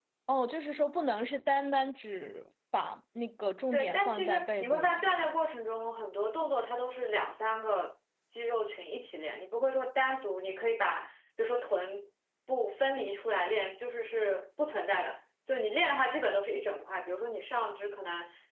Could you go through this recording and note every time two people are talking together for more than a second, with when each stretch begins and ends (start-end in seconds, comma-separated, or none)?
3.7-5.0